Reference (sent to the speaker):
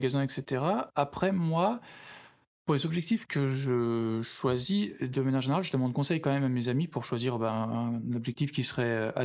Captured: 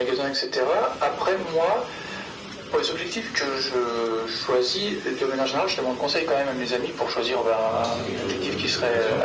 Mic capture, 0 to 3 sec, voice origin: echo only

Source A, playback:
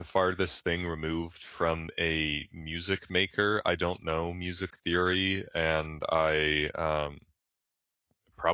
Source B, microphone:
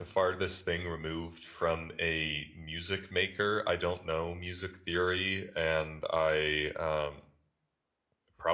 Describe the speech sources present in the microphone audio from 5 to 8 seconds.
echo only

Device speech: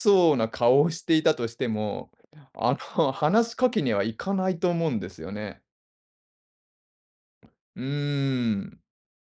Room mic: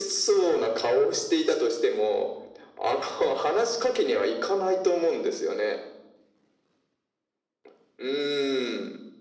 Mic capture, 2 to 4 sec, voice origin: echo only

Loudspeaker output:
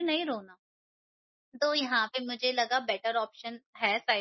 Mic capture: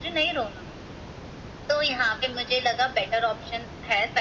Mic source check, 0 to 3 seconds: echo only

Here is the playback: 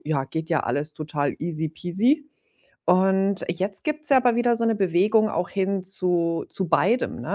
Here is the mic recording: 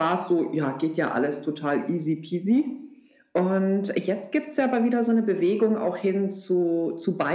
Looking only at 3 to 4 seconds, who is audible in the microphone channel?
echo only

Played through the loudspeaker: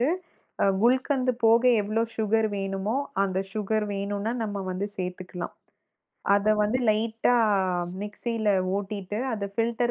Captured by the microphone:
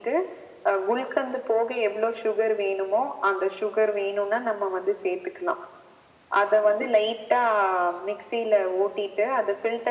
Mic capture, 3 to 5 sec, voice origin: echo only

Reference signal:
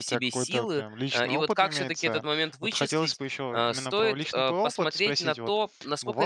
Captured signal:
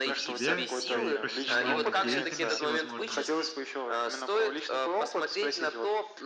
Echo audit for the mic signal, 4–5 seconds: echo only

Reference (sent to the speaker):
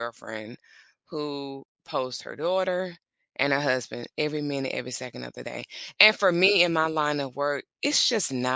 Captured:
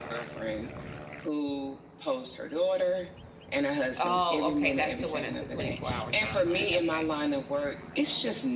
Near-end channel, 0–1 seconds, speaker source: echo only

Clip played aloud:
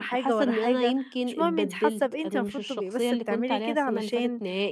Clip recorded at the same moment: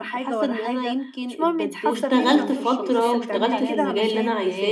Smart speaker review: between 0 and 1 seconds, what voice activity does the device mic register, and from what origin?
echo only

